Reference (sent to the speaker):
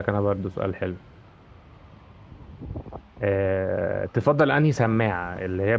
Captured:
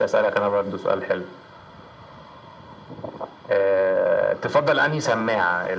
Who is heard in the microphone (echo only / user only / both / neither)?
echo only